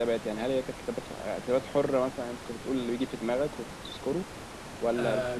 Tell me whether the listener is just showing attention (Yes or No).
No